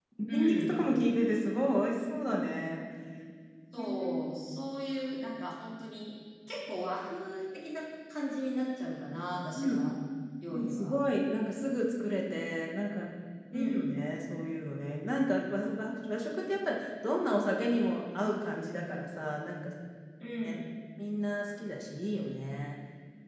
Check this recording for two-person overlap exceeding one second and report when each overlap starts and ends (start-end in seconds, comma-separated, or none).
none